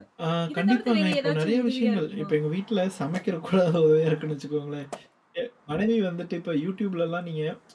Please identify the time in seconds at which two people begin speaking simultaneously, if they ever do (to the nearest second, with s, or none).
1 s